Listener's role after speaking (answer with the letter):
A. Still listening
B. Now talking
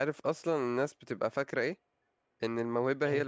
A